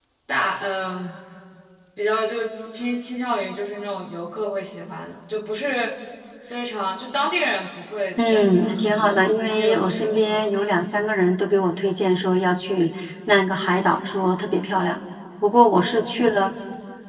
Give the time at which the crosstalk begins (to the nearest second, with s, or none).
8 s